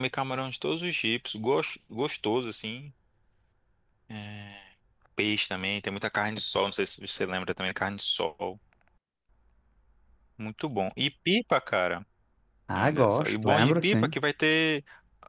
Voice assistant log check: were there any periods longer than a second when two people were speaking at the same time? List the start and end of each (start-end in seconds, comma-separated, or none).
12.8-14.1